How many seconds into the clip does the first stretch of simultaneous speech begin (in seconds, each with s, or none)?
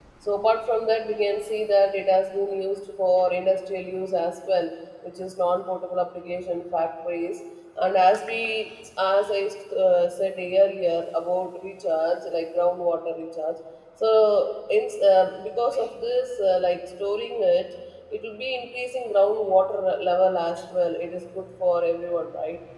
none